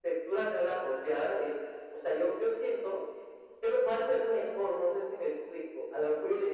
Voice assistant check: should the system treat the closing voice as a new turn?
No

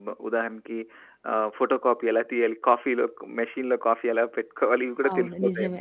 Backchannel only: No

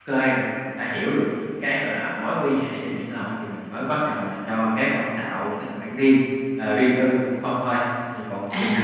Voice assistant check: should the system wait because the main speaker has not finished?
No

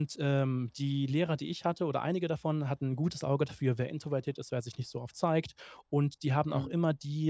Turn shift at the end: No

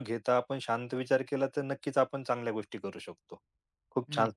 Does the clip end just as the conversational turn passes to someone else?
No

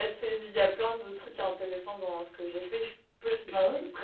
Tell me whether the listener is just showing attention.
Yes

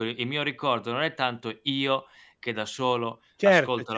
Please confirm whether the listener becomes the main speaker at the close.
No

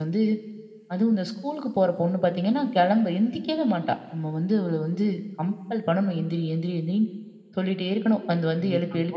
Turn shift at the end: Yes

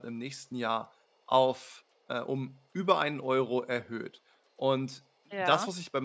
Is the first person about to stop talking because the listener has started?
No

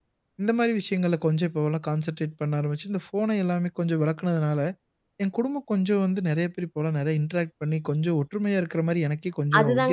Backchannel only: No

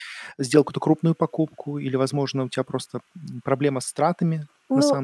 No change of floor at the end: No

